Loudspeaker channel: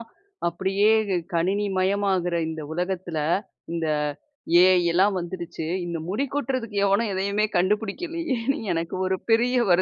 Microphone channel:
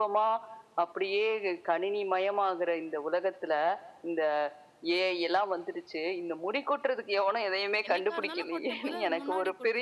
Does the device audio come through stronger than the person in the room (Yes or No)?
Yes